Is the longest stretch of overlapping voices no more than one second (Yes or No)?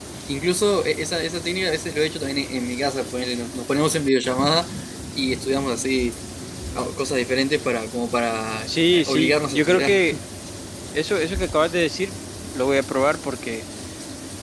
No